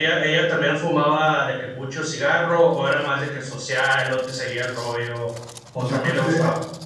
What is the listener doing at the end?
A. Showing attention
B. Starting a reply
B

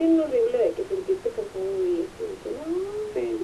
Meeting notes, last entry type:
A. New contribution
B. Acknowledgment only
A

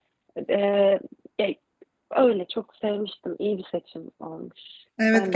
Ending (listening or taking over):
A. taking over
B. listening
A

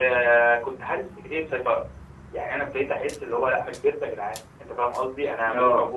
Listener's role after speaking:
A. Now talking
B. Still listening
B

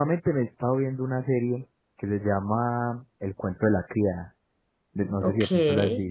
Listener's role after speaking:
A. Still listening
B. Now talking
B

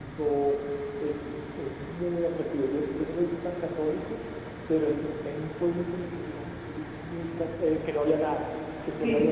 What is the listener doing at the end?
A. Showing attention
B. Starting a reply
A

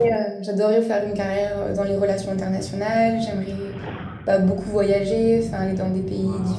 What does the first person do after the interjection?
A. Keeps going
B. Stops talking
A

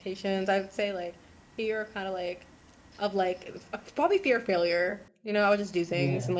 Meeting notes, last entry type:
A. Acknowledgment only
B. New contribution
A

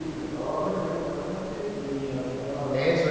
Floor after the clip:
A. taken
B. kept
A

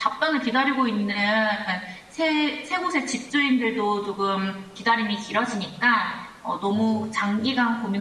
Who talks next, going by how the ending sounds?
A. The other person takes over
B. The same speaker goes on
B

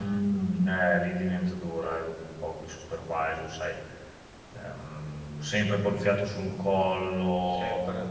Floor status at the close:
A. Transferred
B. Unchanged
B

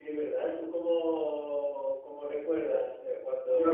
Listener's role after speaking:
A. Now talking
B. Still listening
A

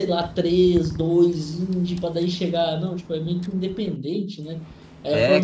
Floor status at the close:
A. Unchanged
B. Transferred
B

